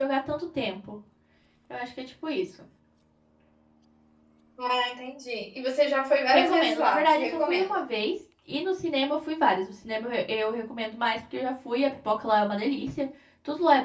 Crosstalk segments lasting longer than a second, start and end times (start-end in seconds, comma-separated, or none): 6.3-7.7